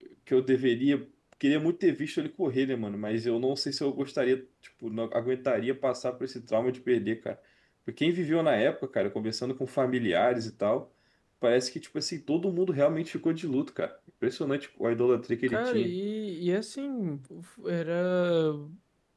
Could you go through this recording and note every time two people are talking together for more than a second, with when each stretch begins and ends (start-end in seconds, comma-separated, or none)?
none